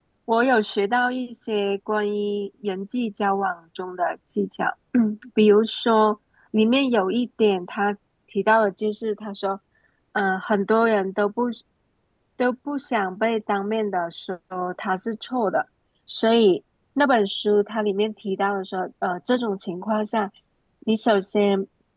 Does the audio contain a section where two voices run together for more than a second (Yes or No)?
No